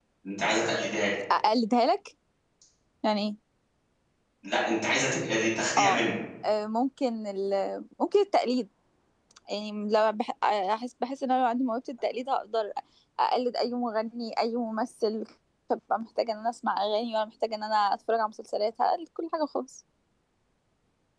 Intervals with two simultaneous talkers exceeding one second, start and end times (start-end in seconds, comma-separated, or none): none